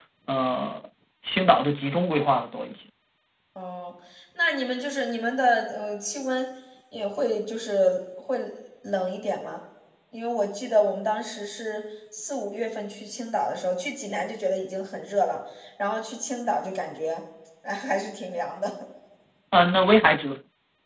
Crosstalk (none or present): none